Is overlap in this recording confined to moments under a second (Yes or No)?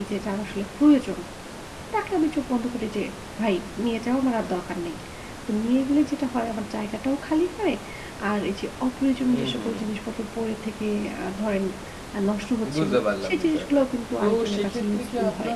No